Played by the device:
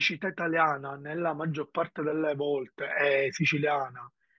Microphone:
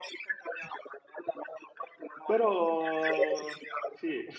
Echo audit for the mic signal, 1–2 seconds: echo only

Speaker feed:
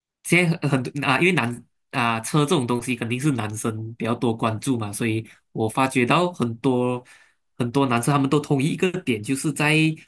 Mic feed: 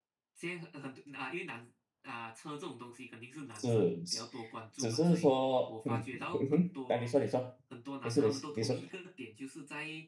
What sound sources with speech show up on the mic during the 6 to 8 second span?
both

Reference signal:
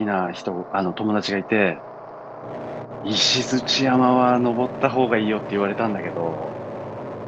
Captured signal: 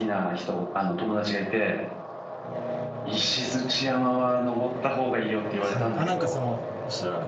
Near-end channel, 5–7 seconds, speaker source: both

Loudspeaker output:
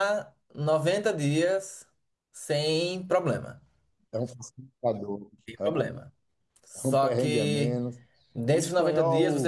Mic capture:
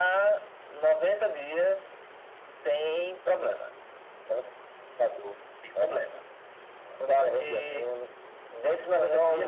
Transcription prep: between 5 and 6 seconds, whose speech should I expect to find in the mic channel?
echo only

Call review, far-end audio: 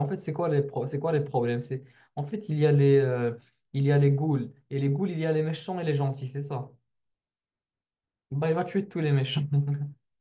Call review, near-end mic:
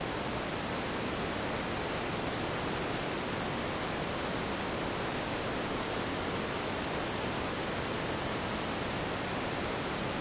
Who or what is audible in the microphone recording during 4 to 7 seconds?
neither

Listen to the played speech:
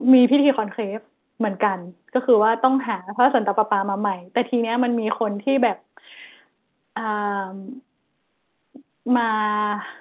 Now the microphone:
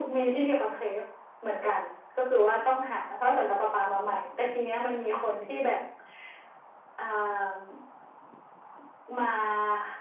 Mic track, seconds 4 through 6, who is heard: echo only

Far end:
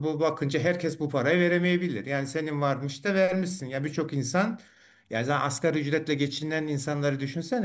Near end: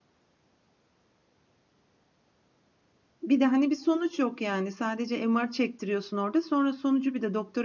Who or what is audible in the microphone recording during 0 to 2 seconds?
neither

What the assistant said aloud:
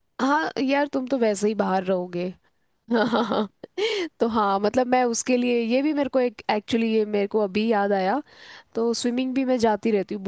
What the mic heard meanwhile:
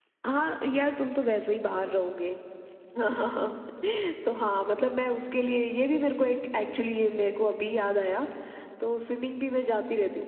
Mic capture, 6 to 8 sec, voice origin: echo only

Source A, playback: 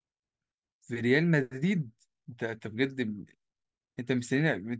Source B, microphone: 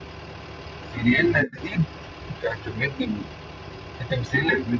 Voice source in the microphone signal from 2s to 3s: echo only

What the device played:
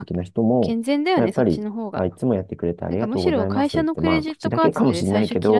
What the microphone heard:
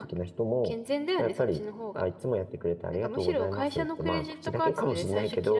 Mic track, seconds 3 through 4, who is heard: echo only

